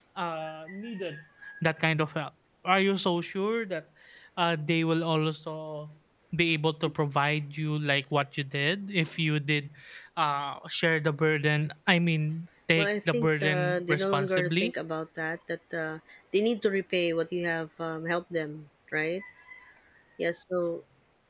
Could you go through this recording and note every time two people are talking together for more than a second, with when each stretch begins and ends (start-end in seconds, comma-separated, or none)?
12.8-14.7